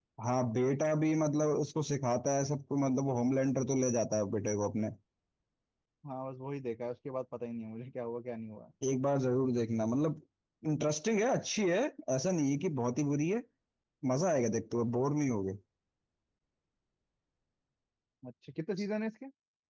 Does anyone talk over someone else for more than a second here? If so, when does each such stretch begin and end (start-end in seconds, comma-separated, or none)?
none